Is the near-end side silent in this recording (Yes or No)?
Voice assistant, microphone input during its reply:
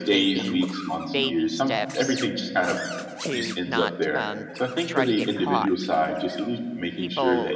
No